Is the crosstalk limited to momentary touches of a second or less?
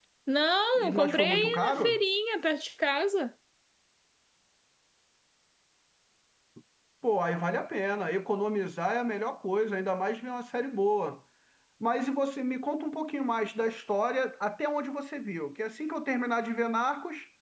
No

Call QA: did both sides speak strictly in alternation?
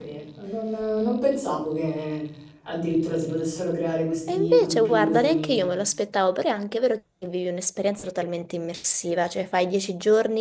No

